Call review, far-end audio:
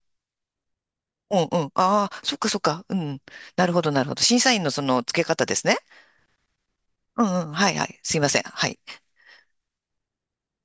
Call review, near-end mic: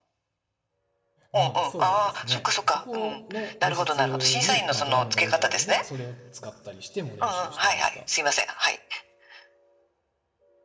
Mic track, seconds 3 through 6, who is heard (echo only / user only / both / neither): both